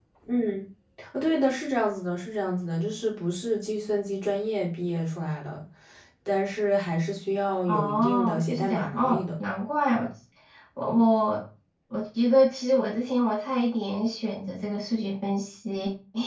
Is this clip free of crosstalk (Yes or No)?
No